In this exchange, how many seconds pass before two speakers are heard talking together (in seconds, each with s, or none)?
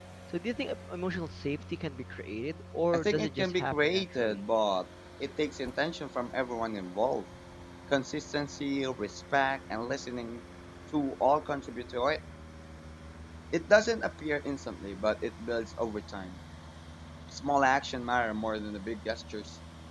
2.9 s